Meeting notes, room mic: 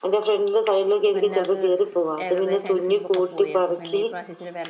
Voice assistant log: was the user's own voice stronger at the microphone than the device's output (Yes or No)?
No